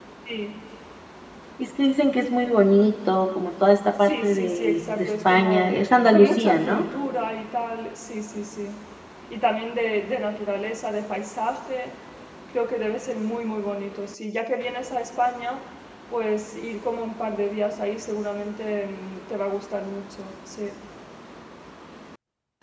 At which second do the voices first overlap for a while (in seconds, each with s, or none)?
4.0 s